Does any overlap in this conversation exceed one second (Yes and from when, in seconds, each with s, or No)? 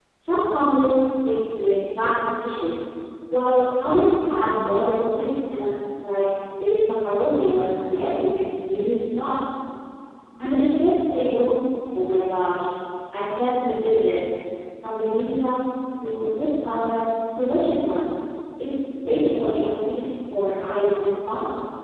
No